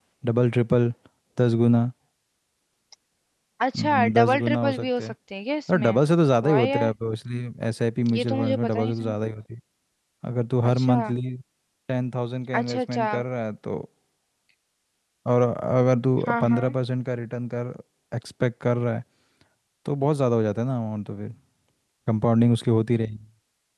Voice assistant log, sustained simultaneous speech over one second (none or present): present